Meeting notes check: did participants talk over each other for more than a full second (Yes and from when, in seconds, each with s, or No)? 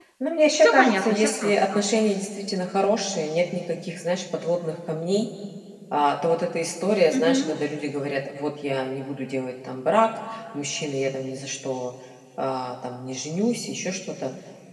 Yes, from 0.6 s